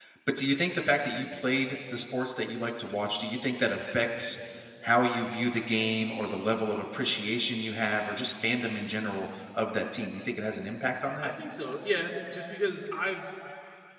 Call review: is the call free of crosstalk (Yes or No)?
Yes